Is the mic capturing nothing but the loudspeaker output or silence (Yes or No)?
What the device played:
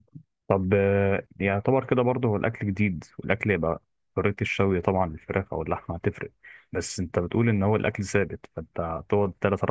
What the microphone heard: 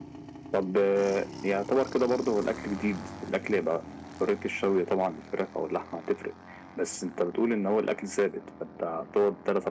Yes